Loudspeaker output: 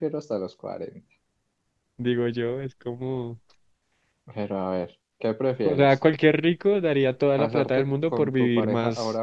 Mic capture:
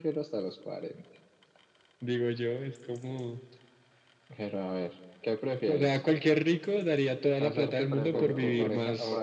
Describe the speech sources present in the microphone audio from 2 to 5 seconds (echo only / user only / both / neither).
echo only